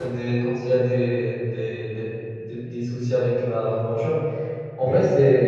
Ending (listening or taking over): listening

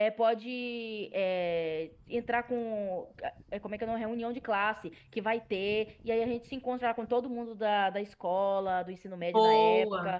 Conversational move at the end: listening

